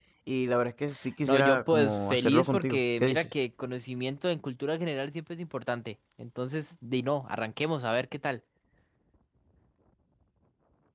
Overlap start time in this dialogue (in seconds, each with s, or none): 1.3 s